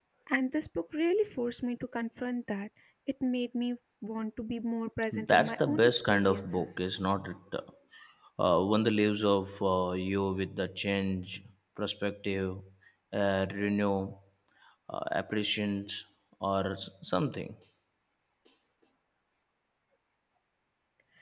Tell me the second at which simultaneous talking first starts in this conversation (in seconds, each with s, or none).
5.1 s